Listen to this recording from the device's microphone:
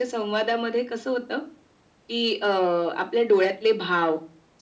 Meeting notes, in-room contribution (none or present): none